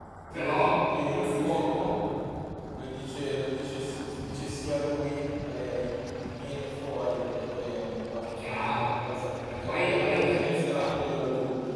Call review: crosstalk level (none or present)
present